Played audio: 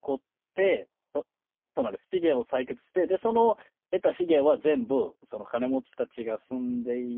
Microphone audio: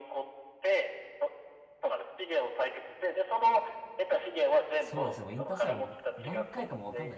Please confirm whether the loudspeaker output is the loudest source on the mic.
Yes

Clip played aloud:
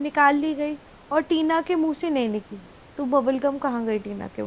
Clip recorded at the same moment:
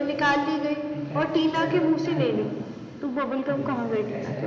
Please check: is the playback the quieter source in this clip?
No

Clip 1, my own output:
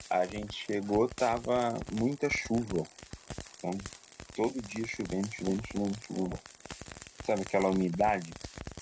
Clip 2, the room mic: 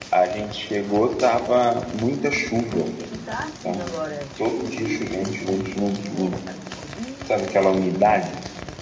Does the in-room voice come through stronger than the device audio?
No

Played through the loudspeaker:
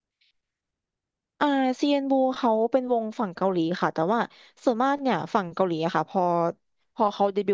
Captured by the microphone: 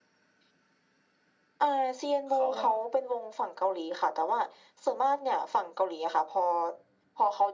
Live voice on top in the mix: No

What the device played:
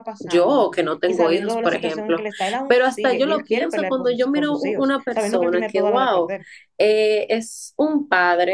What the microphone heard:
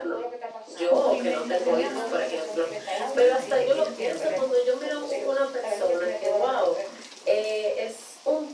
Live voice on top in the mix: No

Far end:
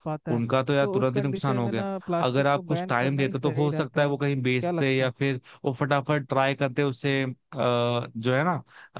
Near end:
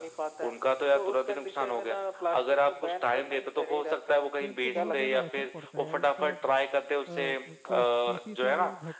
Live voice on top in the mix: No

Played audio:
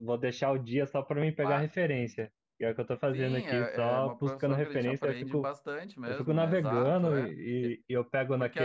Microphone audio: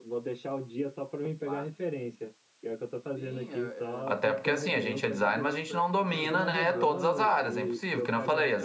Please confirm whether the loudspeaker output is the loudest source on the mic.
No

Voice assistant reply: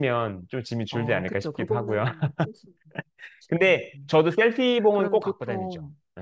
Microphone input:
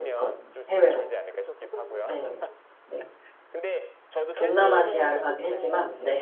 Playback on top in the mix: No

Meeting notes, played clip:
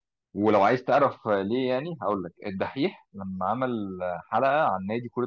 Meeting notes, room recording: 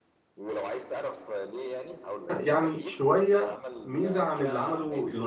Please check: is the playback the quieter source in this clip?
Yes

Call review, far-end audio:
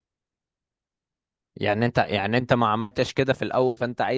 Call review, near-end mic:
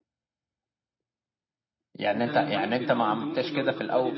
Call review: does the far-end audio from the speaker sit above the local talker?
Yes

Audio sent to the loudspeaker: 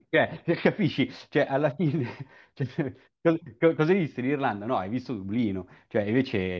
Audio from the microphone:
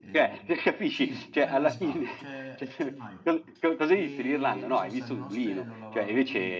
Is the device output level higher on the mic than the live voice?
Yes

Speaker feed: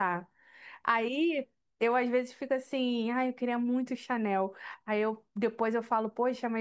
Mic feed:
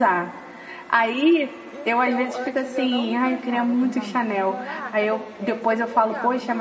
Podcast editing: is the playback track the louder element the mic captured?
Yes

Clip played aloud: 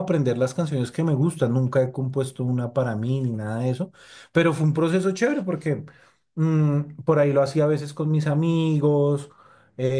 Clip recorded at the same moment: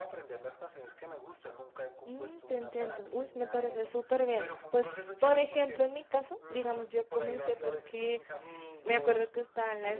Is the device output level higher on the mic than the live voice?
No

